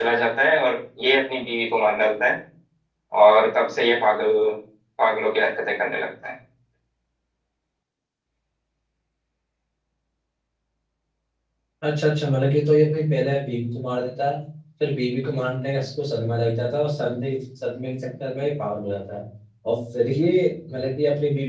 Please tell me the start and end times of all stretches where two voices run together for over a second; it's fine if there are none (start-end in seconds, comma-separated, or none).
none